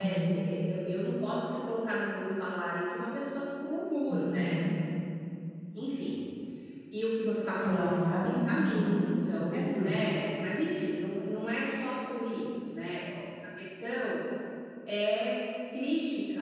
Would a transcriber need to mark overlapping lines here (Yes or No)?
Yes